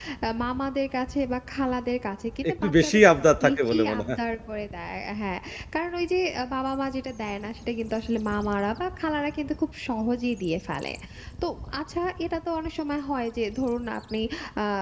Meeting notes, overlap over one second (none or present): present